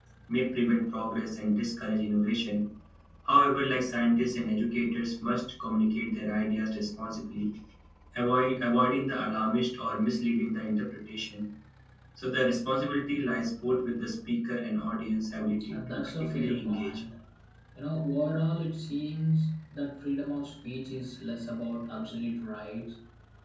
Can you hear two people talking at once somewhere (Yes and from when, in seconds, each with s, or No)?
Yes, from 15.6 s